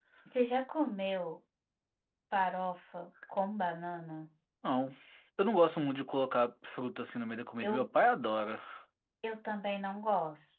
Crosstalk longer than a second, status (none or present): none